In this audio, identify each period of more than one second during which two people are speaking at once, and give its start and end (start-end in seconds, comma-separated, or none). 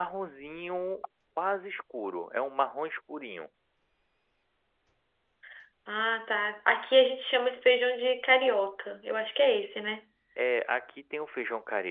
none